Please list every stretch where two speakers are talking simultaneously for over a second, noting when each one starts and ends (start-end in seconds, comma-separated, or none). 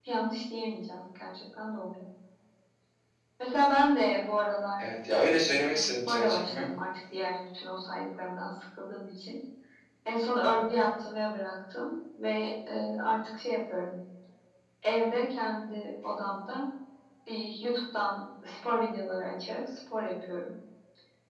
5.4-6.7